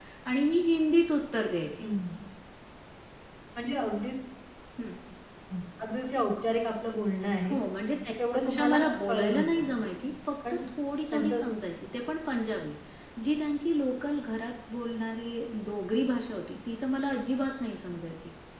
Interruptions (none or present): present